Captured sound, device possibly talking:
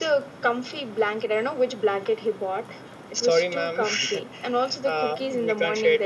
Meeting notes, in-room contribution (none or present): none